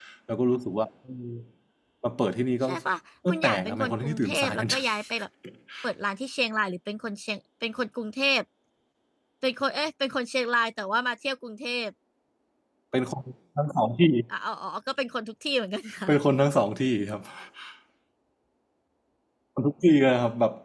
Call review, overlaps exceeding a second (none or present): present